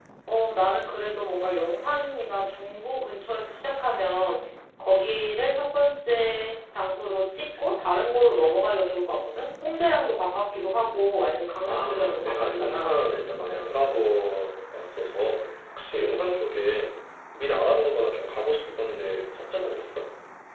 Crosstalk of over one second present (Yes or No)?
Yes